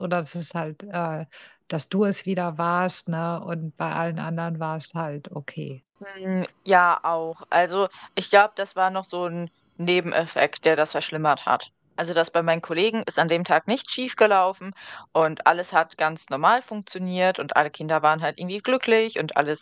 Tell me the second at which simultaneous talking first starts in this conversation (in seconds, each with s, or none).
none